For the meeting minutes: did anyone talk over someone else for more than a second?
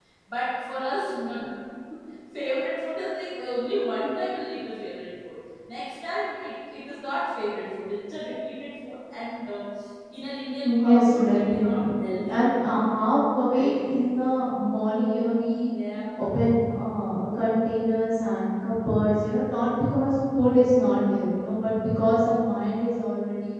Yes, from 10.6 s

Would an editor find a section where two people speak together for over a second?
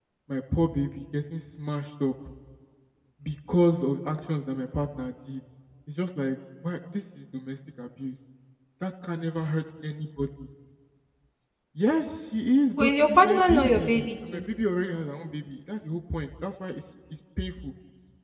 Yes, from 12.8 s

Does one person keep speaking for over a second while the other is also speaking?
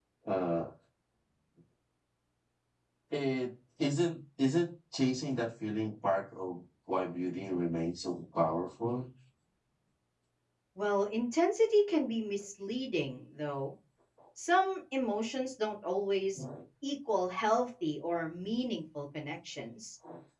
No

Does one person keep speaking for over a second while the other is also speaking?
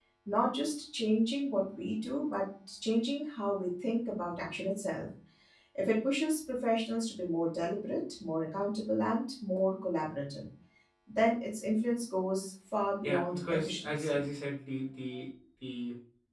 Yes, from 13.0 s

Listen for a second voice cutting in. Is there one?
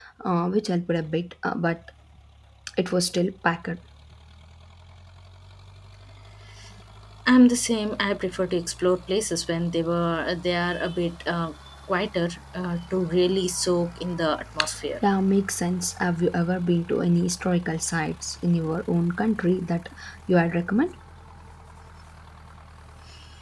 No

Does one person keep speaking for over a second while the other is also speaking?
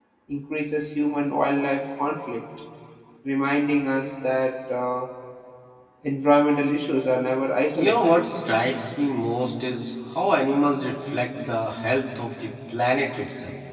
No

